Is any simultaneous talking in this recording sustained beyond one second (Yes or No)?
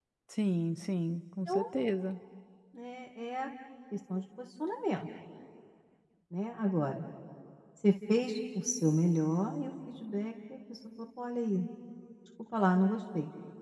No